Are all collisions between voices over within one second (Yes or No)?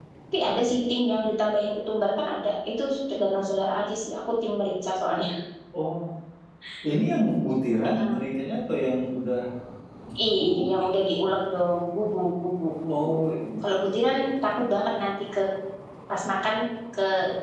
Yes